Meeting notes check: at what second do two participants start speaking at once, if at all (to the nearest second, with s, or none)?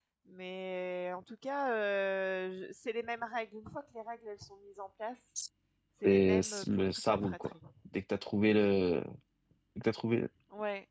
6 s